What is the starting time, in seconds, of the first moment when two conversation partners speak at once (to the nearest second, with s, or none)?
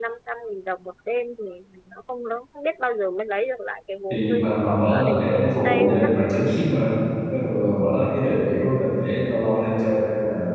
4 s